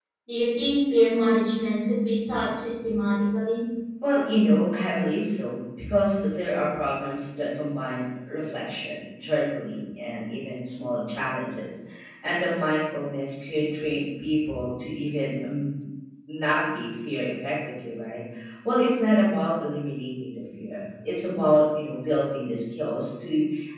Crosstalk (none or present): none